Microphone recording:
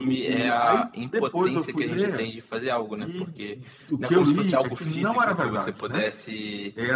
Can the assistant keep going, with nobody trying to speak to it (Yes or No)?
Yes